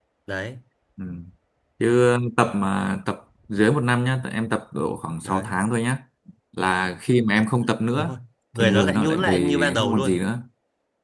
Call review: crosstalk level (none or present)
present